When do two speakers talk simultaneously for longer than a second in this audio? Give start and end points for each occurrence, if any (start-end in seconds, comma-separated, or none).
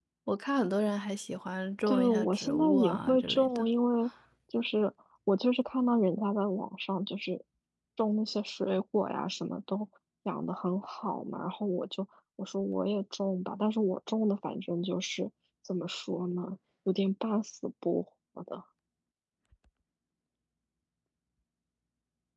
1.9-3.6